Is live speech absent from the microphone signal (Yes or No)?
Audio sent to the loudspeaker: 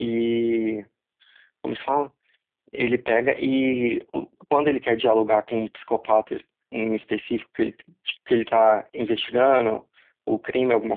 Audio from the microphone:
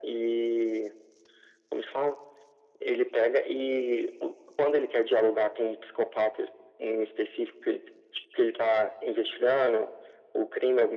Yes